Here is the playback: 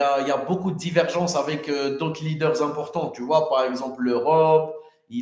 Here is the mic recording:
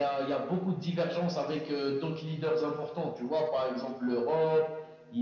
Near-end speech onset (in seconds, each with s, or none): none